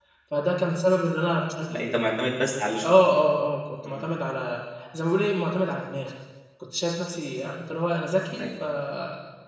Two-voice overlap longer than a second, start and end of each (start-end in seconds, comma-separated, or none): none